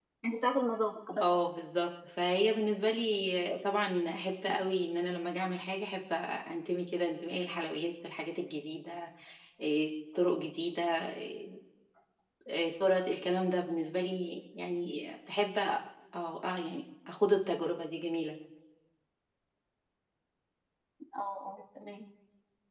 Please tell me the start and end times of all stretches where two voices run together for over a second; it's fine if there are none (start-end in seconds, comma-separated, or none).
none